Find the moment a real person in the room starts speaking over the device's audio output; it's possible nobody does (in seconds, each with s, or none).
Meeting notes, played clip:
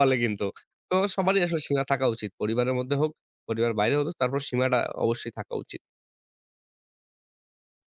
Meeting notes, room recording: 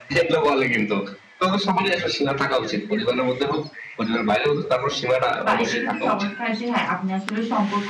5.5 s